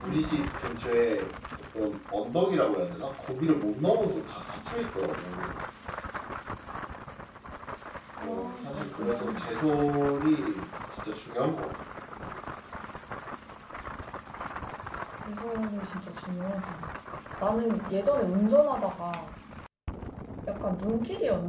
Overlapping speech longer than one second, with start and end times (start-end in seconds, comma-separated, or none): 8.2-9.4